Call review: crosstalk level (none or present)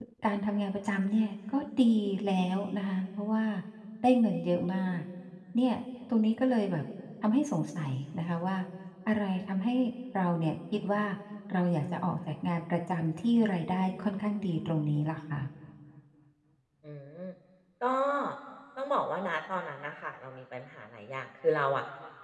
none